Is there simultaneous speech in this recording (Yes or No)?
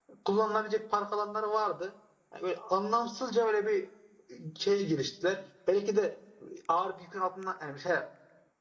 No